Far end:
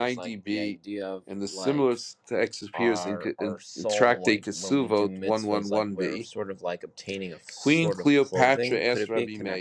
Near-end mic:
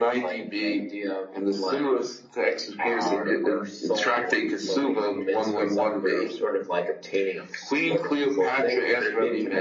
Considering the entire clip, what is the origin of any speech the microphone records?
echo only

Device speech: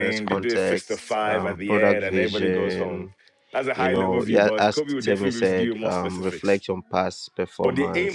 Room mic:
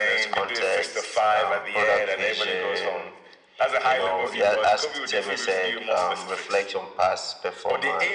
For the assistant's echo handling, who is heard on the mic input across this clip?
echo only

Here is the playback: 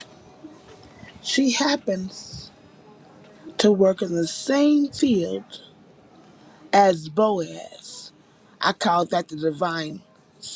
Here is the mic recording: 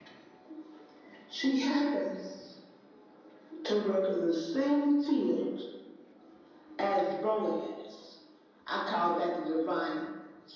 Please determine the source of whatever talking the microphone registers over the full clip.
echo only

